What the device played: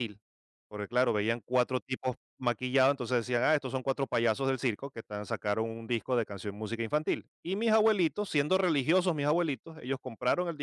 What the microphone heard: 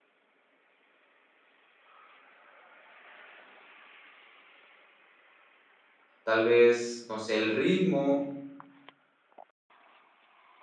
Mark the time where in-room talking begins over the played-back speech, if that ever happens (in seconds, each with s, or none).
6.2 s